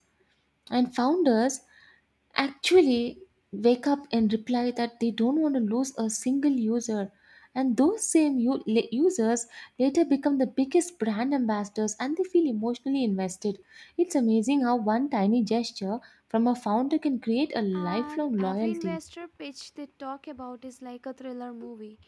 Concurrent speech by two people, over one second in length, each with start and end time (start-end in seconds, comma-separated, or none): 17.7-19.0